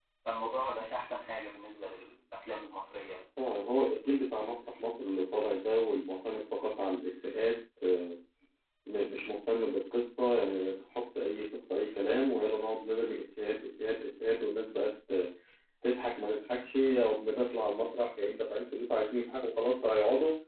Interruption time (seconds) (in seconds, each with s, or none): none